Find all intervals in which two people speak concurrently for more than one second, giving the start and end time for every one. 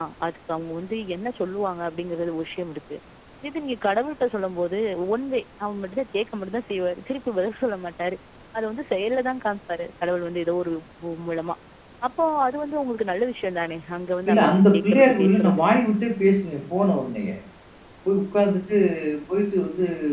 14.3-15.6

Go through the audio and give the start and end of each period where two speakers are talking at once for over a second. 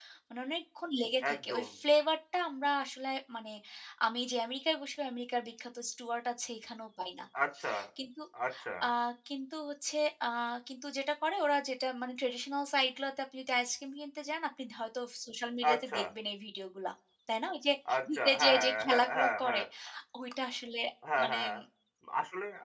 18.1-19.6

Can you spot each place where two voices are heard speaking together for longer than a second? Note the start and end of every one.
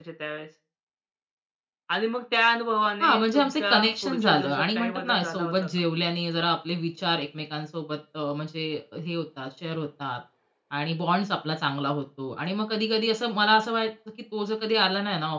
3.0-5.5

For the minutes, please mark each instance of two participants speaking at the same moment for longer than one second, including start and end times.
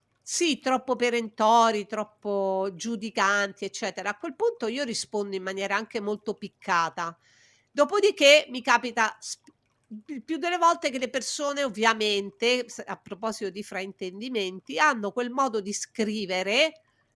none

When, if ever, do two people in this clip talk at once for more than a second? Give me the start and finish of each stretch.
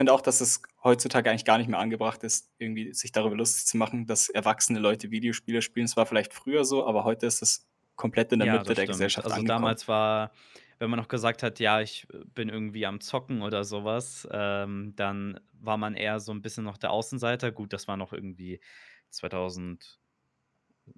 8.4-9.7

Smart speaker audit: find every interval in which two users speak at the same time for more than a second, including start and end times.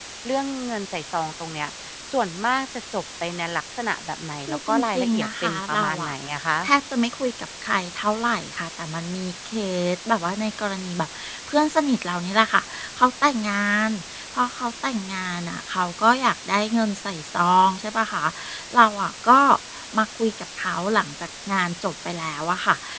4.5-6.1

